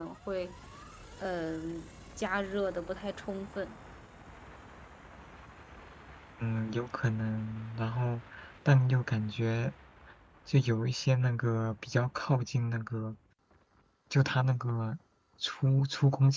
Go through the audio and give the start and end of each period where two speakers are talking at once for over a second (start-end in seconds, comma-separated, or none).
none